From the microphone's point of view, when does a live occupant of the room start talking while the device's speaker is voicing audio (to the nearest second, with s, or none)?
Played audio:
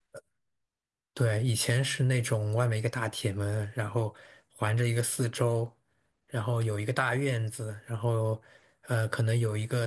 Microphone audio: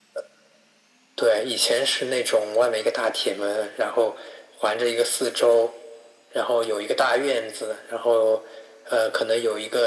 none